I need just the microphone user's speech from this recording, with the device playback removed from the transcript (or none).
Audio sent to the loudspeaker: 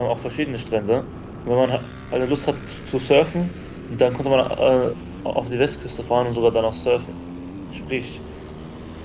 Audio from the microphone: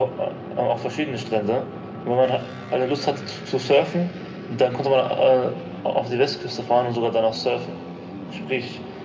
none